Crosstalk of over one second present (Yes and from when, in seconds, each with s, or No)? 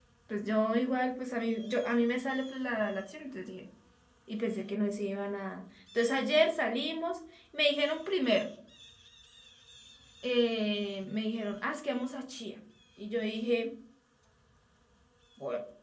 No